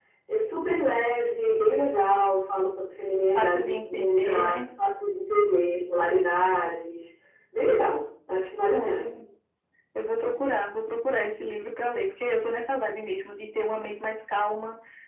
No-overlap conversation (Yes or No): No